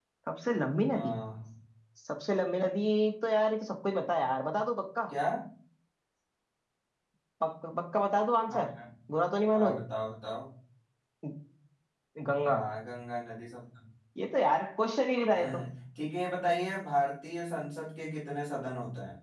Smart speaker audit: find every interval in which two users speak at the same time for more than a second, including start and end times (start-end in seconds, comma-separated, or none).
none